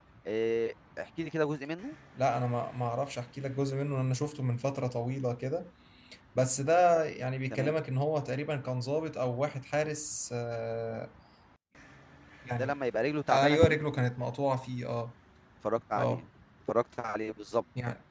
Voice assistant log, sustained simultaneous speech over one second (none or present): none